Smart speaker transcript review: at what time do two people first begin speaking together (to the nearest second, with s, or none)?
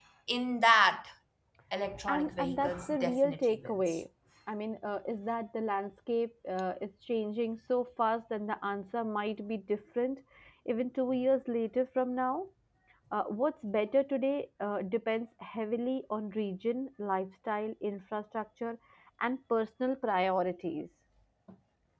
2 s